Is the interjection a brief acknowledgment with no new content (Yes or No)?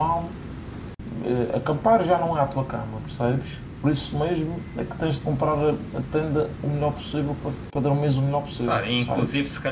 No